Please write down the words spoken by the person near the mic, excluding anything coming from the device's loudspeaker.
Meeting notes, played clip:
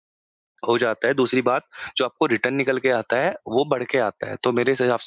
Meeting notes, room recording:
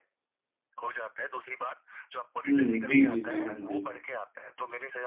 हुँ, जी, जी, जी, हाँ जी।

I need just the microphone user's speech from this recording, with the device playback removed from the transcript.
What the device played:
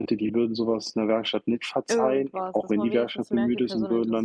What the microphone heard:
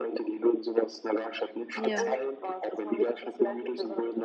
Ja.

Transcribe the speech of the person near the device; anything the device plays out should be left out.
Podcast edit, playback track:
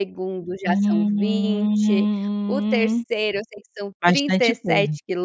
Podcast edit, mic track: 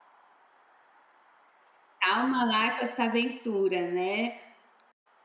calma lá com essa aventura, né,

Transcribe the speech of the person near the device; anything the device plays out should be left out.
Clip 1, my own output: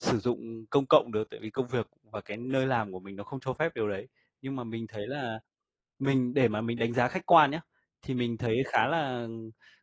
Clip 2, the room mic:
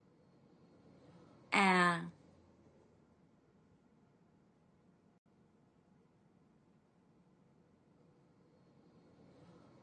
À.

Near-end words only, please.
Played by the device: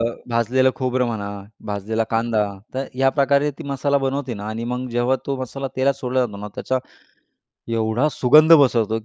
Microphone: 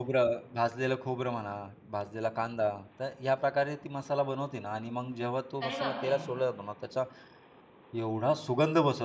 अरे, बापरे!

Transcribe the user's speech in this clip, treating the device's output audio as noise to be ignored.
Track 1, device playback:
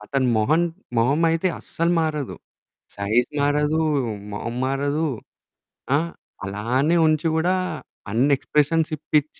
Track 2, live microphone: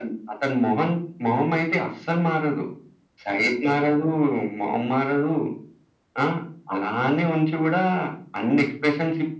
none

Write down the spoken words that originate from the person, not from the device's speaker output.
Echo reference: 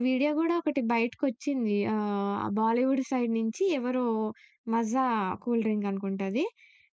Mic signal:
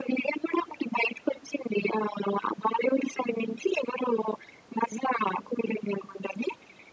none

